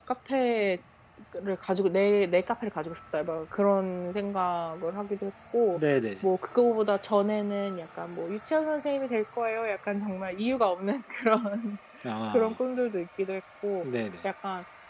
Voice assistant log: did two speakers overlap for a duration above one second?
No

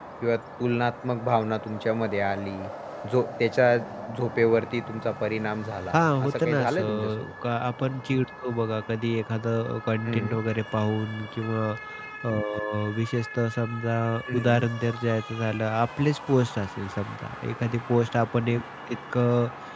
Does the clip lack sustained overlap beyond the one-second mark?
No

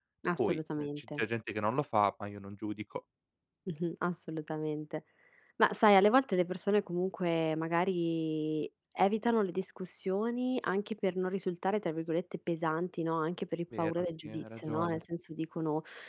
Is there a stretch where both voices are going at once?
Yes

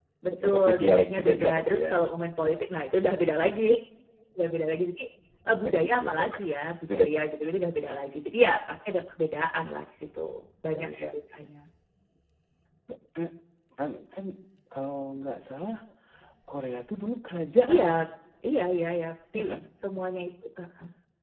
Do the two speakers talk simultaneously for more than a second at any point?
Yes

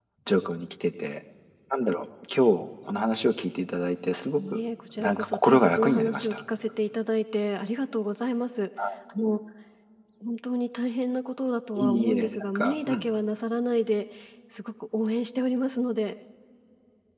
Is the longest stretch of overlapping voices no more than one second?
No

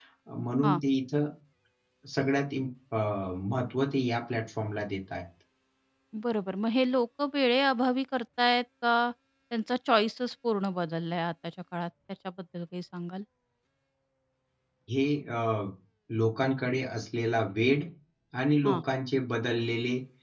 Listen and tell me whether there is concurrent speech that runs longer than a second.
No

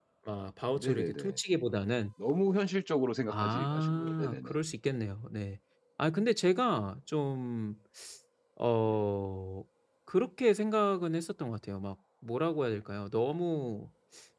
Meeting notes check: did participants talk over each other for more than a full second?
Yes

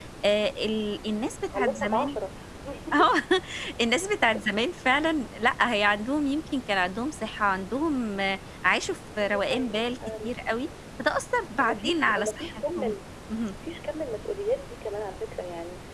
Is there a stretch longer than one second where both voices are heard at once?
Yes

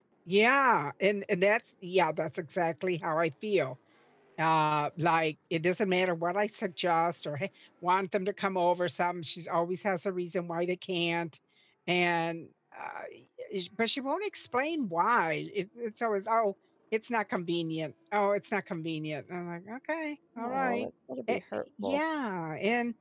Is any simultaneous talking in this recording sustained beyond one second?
No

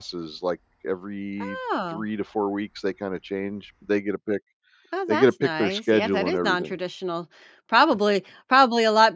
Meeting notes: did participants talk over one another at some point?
Yes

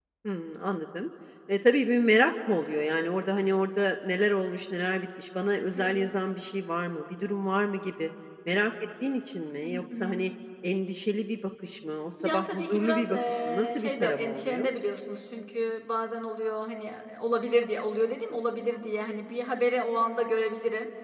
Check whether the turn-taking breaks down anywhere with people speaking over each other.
Yes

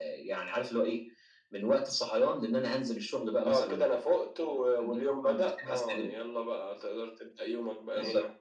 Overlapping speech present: Yes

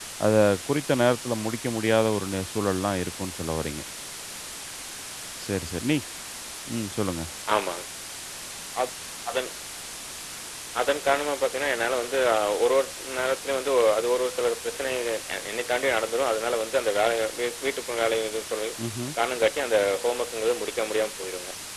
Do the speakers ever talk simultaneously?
No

